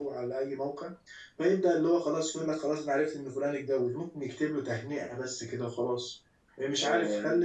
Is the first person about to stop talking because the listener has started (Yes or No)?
No